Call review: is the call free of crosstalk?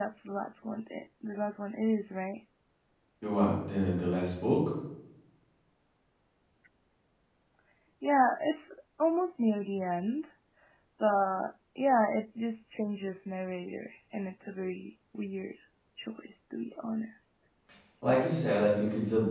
Yes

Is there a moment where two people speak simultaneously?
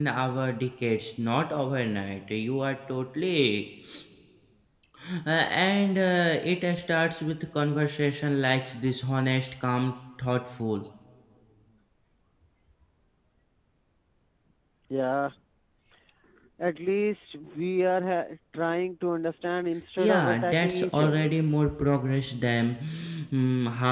Yes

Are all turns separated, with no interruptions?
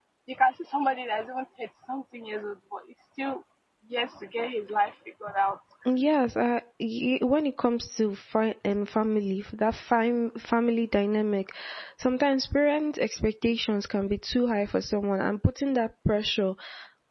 Yes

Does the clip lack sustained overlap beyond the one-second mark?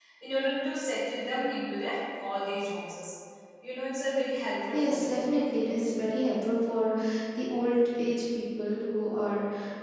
Yes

